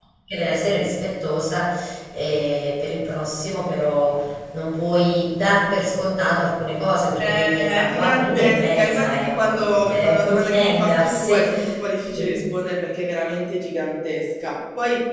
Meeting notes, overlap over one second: present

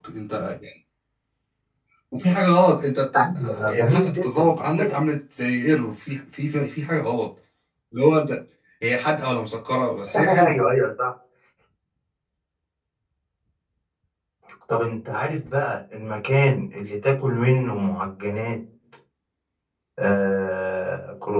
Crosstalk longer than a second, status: present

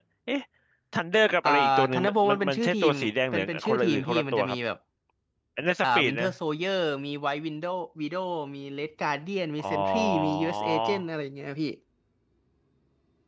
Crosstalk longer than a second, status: present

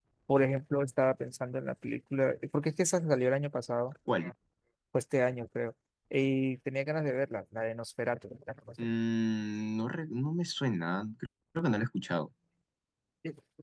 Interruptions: none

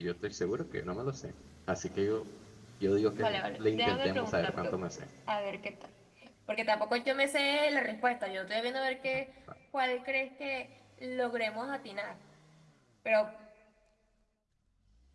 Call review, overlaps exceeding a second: present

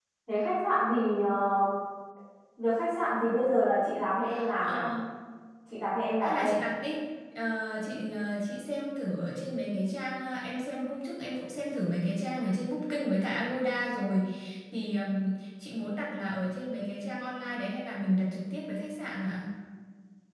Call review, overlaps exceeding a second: none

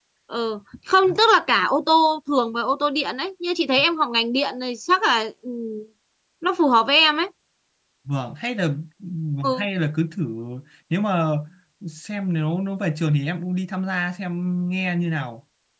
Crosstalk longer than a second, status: none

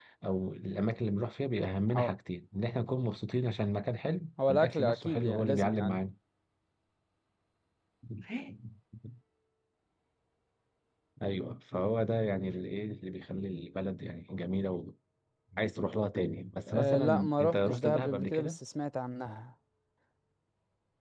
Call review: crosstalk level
present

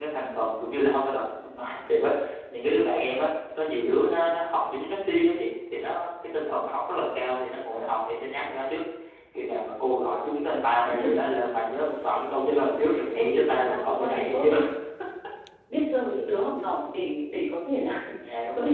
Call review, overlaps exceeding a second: present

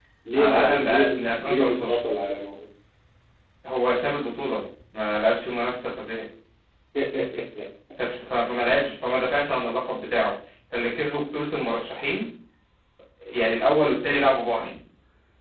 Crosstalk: present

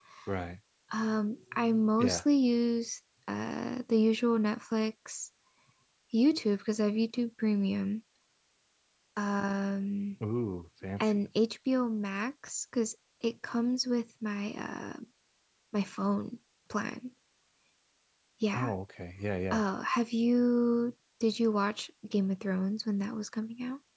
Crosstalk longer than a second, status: none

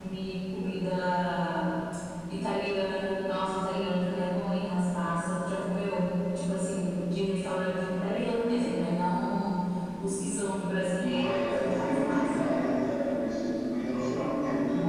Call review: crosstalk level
present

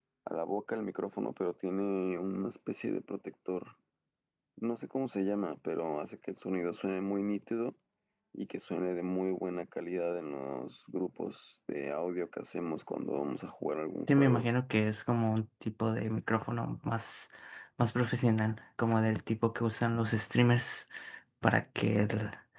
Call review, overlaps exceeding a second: none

